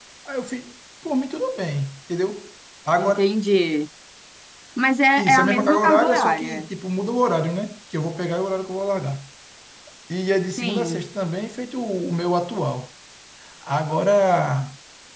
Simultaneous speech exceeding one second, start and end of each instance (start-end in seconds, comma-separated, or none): 5.2-6.7